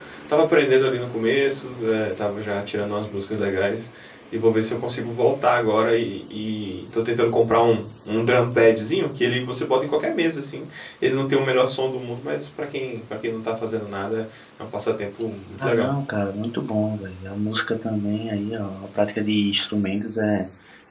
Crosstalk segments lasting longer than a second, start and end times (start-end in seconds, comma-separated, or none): none